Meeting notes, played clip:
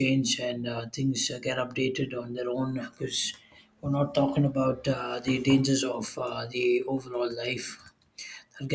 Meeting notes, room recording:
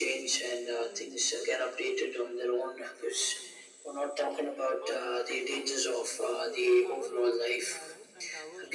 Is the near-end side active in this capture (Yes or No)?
Yes